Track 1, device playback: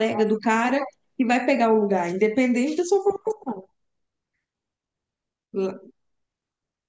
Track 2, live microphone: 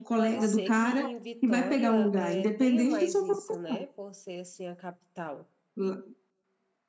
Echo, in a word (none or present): present